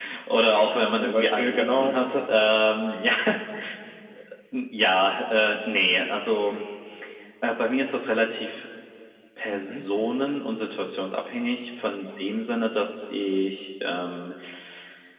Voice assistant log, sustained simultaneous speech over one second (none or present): present